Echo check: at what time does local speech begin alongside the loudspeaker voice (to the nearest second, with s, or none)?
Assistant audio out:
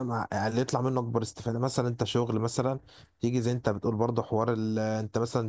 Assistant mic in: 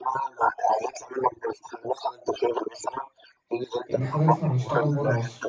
4 s